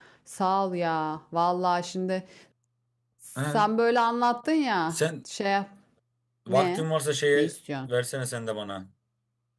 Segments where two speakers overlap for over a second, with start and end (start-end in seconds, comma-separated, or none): none